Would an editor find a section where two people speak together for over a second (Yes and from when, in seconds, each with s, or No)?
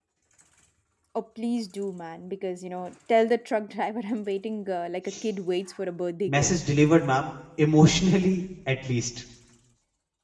No